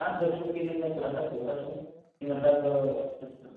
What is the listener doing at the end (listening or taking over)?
listening